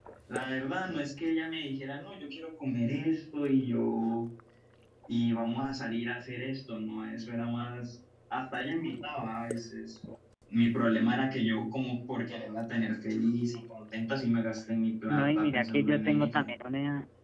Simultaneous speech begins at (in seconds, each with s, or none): 15.1 s